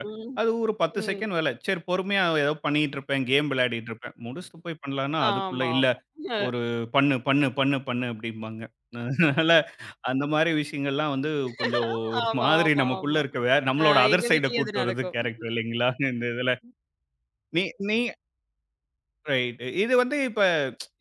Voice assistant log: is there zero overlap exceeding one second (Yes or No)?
No